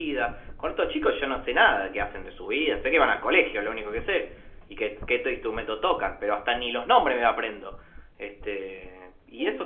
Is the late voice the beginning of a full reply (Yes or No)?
No